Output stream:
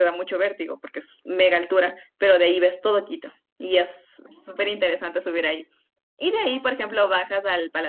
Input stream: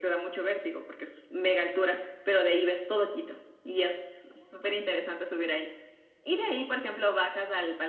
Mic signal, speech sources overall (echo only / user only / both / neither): echo only